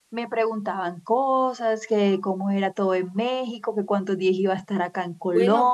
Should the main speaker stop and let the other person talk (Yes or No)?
Yes